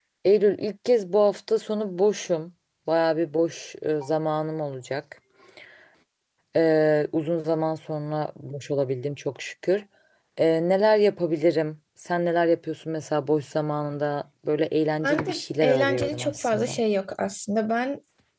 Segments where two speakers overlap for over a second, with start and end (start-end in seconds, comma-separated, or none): 15.0-16.8